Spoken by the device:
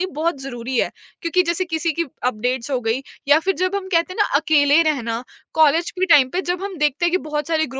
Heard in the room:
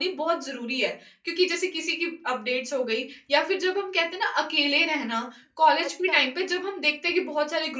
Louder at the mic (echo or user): echo